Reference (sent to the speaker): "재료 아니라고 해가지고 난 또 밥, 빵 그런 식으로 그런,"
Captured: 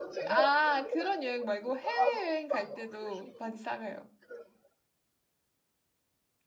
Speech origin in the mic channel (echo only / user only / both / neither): both